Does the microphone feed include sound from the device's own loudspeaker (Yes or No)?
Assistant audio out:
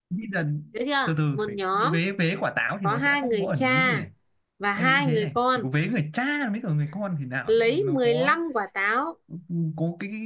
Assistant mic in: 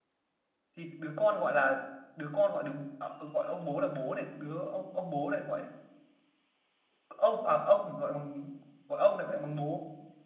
No